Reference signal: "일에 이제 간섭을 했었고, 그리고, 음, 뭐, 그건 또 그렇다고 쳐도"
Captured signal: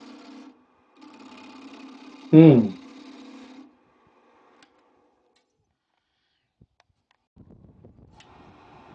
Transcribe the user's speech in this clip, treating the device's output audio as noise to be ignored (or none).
음,